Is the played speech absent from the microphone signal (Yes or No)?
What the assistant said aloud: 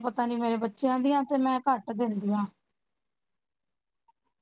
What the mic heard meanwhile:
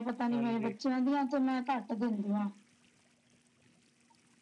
No